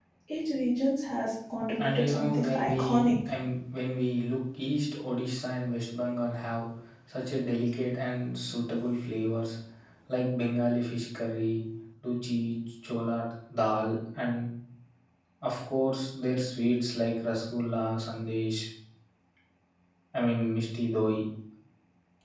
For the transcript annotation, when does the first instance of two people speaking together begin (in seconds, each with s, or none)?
1.8 s